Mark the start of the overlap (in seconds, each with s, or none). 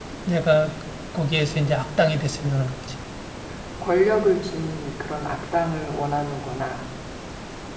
none